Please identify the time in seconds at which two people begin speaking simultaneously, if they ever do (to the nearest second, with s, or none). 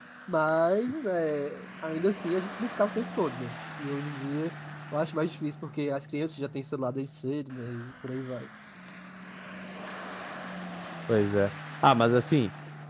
none